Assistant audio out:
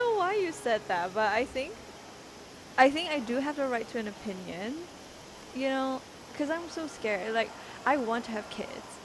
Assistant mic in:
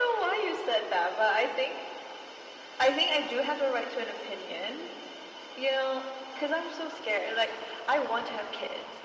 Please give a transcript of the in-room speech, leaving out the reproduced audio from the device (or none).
none